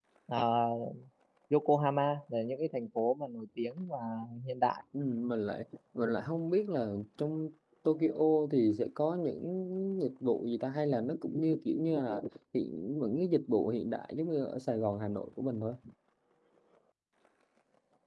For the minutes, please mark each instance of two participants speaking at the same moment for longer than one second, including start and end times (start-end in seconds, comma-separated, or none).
none